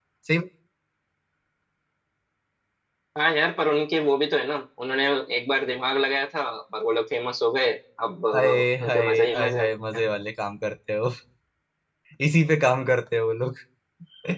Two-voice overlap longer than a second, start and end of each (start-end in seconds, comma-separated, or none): 8.3-9.6